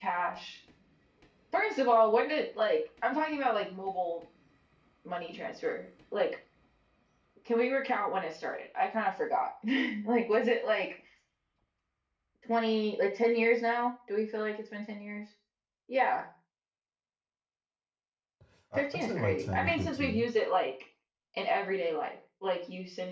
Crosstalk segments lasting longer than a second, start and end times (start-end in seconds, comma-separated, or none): 18.7-20.3